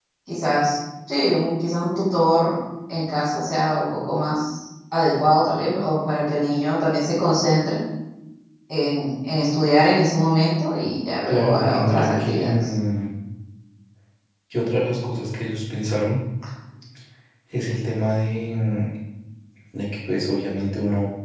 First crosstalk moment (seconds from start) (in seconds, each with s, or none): 11.3 s